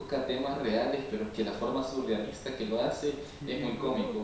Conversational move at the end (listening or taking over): taking over